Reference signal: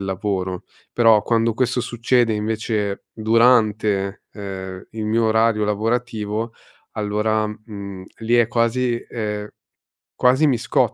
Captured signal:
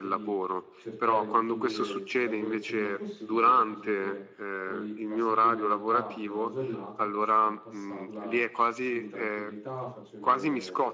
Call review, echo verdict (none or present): present